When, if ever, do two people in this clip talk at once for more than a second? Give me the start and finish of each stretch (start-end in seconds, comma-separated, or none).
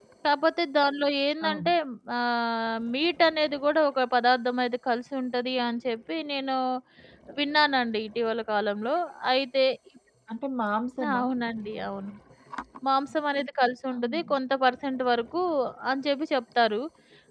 none